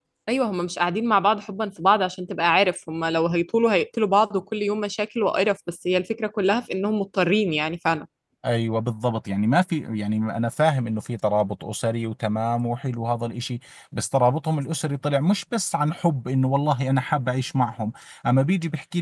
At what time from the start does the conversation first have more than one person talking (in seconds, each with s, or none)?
none